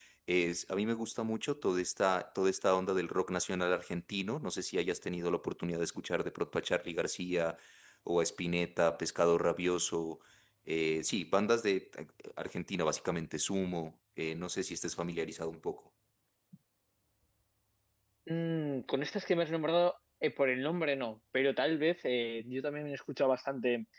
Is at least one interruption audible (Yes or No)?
No